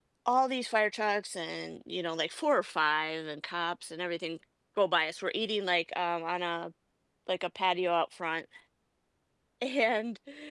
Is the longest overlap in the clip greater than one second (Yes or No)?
No